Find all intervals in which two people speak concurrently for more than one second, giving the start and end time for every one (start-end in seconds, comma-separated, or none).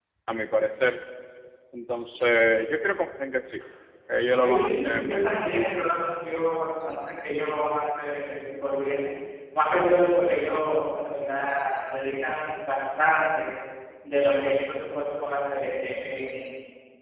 4.2-5.4